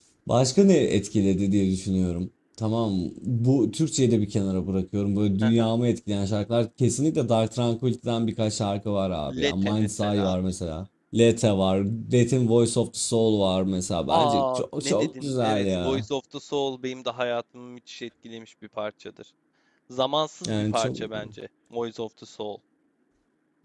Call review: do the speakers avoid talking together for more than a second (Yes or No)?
No